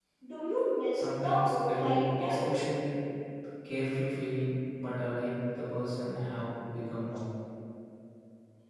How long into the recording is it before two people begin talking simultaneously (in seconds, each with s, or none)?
0.9 s